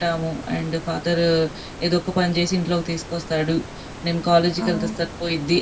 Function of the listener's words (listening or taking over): listening